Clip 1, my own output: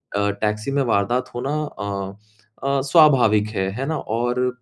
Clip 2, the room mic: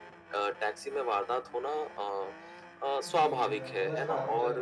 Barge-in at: 3.0 s

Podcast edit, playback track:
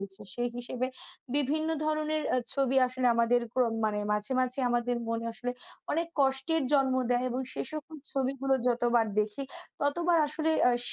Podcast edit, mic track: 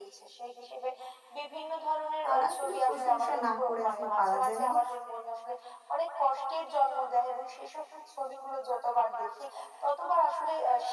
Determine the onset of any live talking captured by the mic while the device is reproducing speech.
2.2 s

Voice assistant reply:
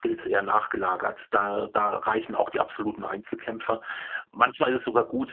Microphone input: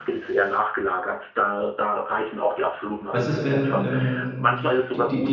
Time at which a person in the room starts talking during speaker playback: 3.1 s

